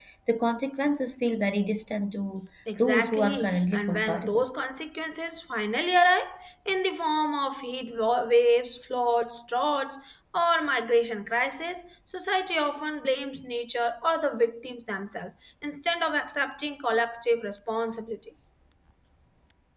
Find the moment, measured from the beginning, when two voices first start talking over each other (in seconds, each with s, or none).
2.7 s